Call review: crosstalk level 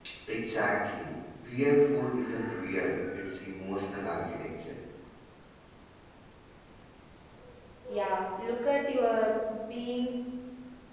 none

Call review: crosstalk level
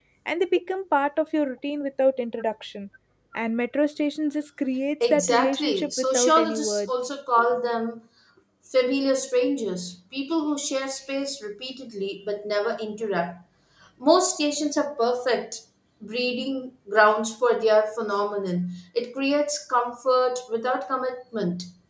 present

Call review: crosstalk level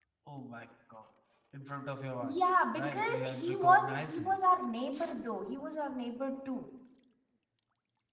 present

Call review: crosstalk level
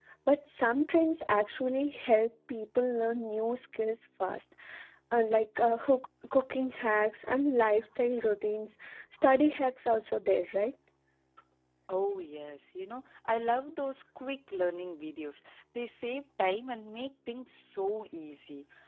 none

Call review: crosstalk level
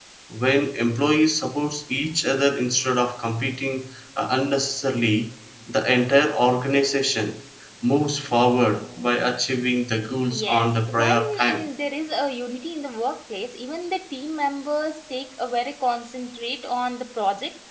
present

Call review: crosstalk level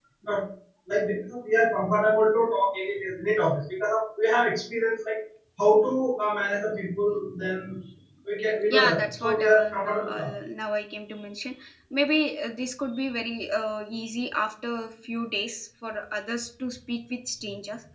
present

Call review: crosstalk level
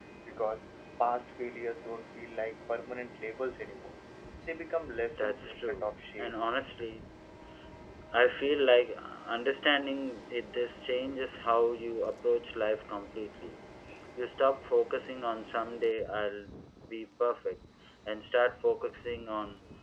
present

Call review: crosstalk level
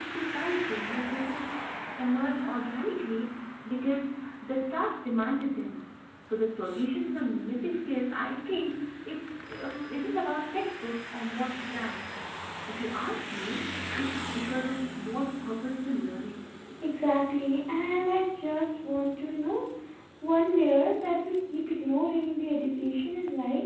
none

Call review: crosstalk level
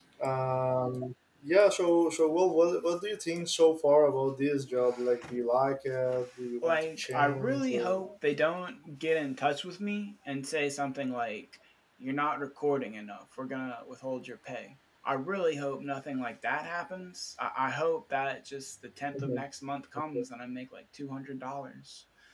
present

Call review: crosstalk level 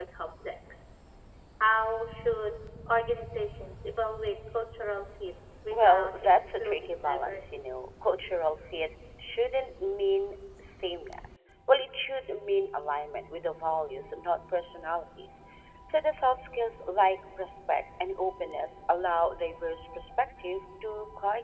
present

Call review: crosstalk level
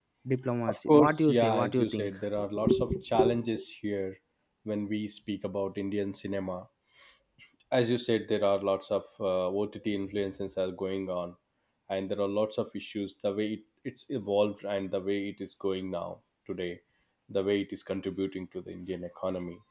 present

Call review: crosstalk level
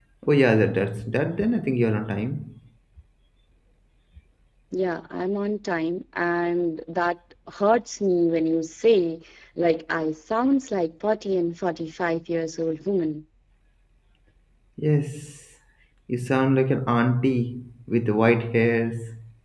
none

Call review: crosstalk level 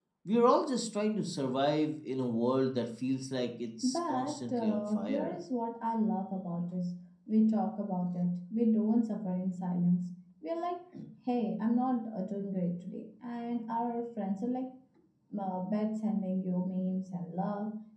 present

